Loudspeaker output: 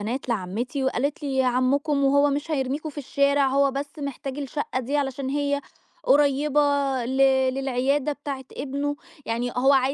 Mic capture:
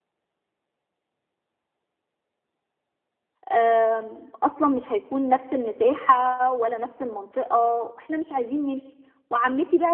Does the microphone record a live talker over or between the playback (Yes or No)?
Yes